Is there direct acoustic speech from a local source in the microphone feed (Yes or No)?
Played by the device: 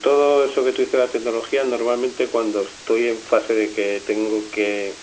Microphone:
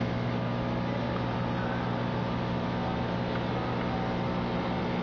No